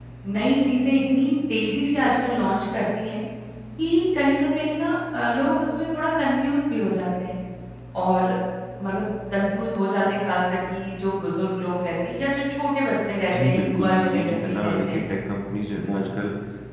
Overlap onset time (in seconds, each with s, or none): 13.3 s